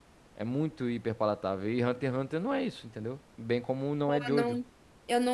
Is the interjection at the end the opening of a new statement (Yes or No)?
Yes